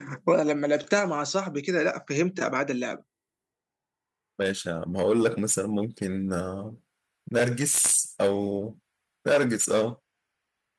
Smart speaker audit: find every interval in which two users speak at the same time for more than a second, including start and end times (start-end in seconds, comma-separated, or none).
none